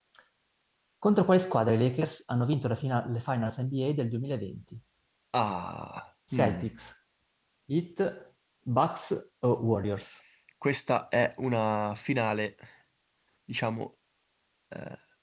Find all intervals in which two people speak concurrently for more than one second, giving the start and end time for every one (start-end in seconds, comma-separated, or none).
none